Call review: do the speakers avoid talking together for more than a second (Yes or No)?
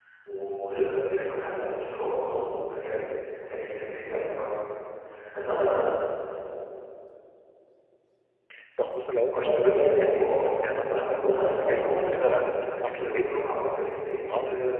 No